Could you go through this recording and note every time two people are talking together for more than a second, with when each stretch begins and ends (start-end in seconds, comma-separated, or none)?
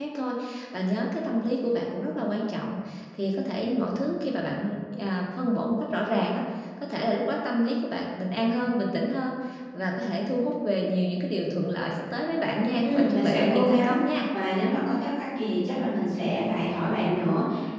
12.8-14.2